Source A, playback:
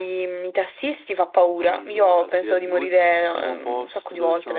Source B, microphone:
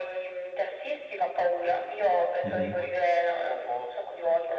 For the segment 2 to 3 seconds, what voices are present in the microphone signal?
both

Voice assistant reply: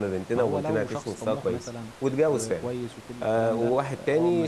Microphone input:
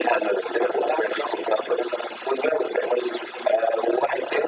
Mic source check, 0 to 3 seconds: echo only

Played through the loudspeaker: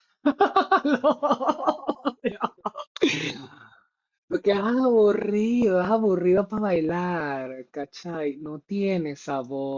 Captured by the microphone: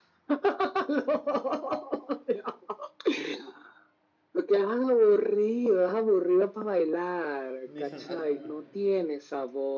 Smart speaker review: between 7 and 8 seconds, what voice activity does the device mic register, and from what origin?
both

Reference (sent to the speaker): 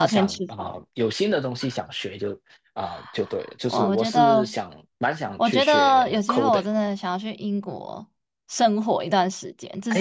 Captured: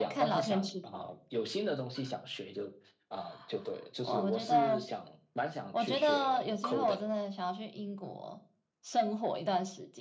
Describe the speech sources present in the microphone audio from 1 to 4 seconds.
echo only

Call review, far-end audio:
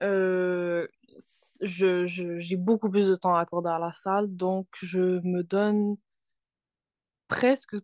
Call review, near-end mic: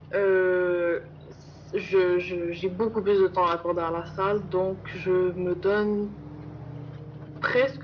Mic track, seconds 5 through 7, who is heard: echo only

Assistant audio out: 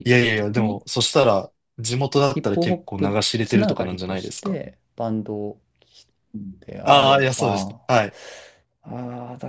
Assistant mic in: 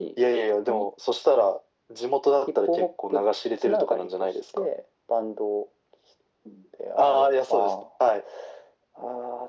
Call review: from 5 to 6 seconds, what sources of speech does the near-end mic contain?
echo only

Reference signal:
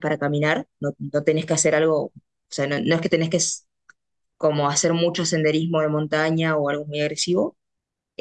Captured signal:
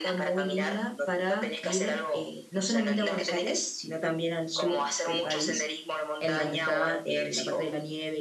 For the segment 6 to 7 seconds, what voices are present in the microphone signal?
both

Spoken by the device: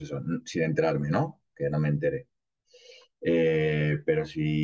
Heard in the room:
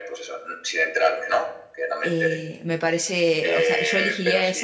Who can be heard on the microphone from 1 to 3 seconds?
both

